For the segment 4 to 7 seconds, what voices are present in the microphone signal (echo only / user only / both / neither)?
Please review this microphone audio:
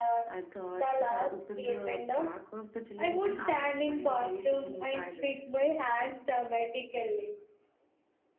both